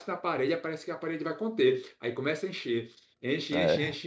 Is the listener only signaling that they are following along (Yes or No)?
Yes